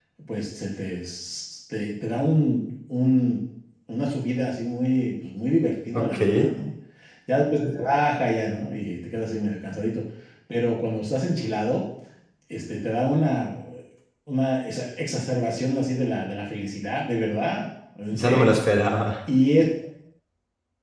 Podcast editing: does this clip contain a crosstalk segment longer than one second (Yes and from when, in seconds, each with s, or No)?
No